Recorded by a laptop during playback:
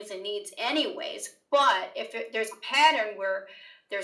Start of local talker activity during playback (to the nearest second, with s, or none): none